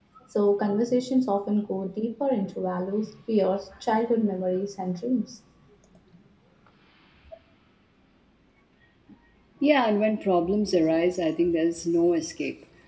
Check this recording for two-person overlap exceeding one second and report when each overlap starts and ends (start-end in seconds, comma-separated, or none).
none